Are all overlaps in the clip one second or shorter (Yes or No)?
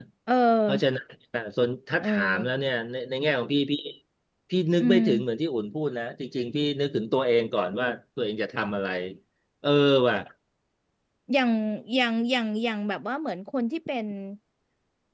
Yes